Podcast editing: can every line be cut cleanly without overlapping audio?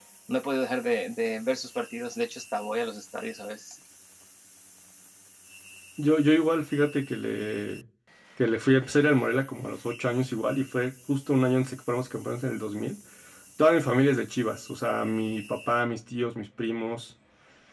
Yes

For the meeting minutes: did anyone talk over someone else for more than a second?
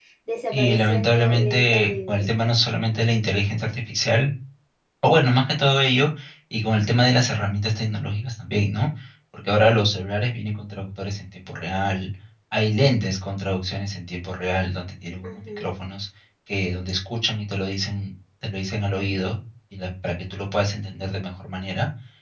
Yes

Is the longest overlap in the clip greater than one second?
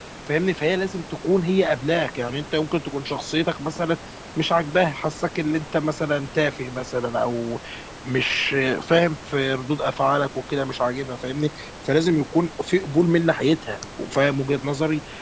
No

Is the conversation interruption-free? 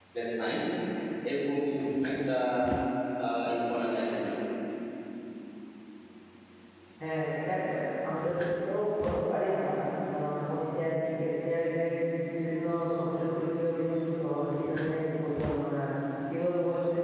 Yes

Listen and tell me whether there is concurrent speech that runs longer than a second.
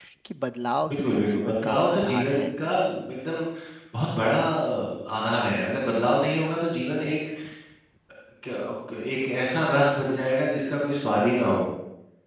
Yes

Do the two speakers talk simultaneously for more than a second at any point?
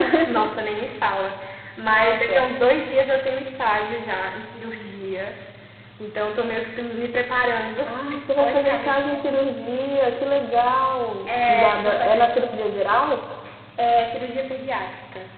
Yes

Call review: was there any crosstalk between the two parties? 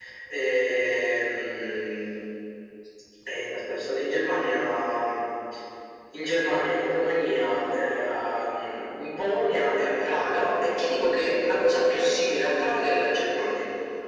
No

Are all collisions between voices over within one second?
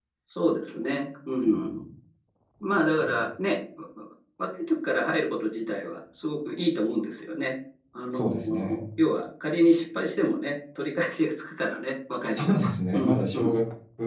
No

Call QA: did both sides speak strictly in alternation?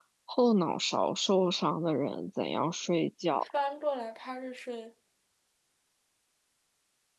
Yes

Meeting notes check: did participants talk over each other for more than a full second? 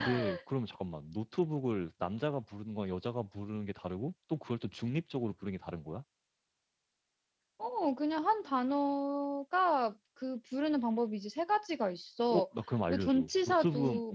Yes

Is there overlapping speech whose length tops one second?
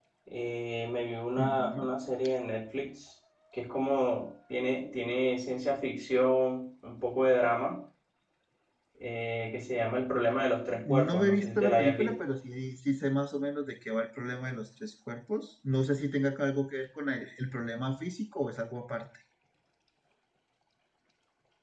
Yes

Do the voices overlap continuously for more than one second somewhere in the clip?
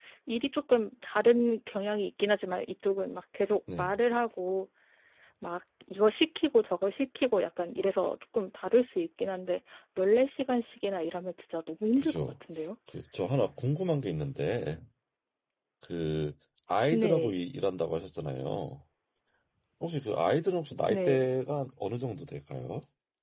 No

